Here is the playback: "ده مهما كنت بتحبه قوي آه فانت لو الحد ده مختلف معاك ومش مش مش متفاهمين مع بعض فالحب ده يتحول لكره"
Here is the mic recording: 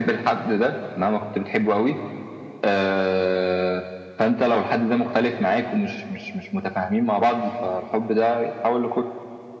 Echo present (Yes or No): Yes